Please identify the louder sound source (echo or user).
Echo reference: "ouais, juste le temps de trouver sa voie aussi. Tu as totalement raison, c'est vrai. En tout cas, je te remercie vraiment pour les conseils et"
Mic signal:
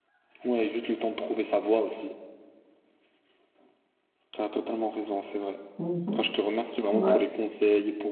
user